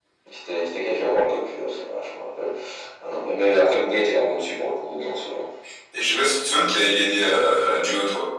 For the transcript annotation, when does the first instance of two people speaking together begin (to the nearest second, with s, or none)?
none